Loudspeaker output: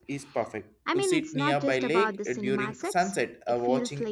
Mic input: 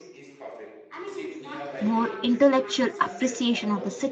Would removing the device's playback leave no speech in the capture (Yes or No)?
No